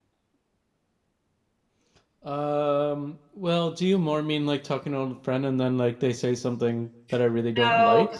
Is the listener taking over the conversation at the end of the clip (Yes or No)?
Yes